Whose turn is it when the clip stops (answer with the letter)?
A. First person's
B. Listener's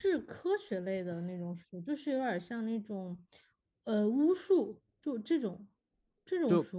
B